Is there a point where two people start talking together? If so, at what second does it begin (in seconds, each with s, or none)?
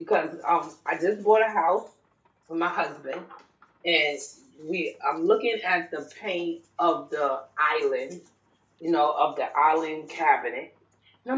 none